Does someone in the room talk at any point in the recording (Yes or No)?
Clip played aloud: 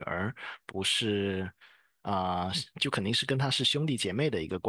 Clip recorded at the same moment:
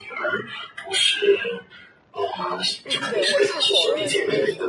Yes